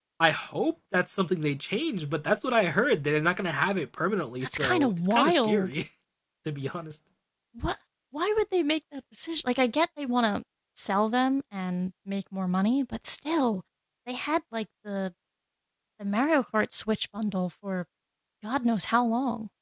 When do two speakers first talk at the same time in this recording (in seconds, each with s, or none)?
4.4 s